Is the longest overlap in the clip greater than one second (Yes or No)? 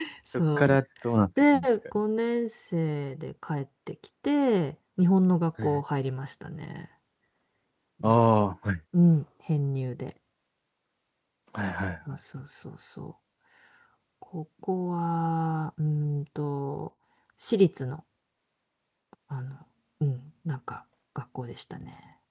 No